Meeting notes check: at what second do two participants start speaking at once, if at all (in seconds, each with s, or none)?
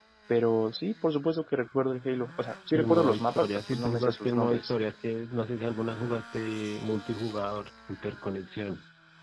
2.7 s